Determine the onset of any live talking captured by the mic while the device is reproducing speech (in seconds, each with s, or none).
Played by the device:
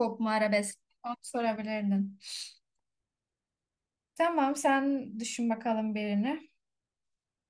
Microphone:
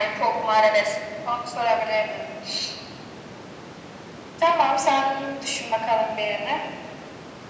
none